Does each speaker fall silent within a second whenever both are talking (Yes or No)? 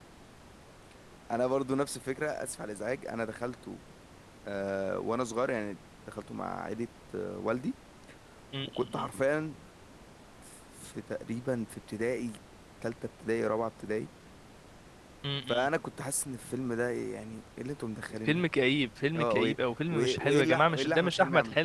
No